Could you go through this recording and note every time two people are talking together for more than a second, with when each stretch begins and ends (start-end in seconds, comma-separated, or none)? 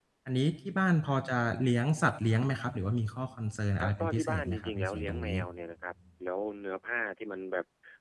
3.8-5.4